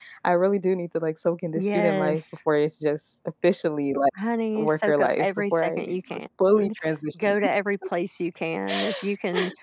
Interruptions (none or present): present